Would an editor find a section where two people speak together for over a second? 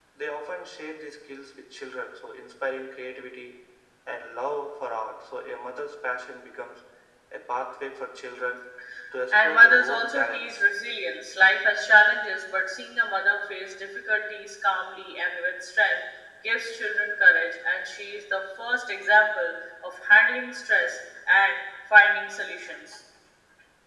Yes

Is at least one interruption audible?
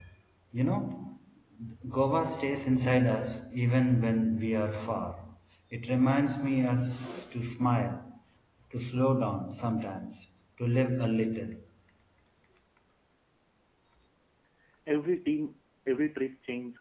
No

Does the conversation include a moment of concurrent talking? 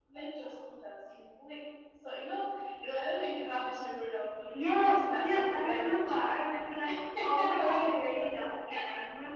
Yes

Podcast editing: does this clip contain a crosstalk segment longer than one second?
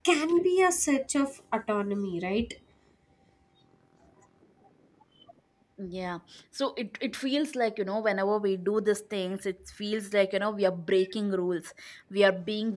No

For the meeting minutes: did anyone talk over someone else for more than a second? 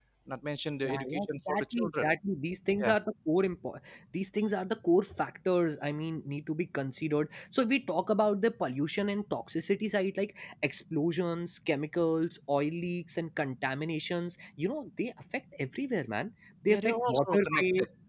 Yes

